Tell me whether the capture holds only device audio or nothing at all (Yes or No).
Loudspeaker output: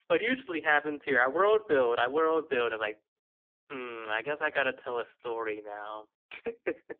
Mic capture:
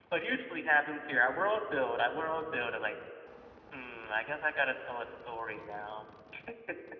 Yes